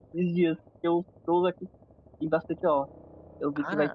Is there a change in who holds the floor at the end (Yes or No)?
No